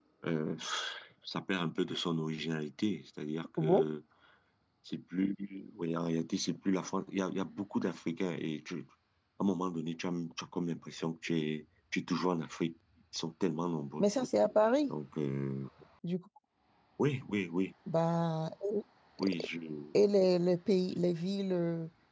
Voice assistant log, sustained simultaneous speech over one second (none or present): none